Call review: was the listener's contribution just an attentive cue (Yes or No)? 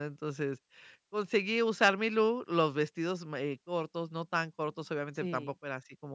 Yes